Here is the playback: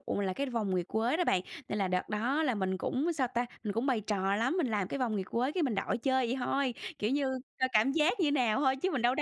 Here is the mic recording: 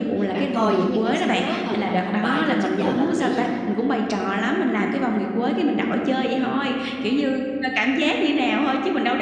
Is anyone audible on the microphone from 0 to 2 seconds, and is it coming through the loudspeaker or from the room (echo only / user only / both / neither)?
both